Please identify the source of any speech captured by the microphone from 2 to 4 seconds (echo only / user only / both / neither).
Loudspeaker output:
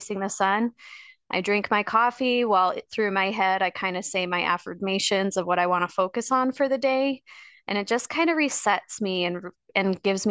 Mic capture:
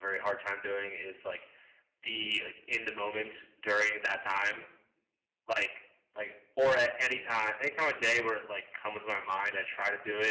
user only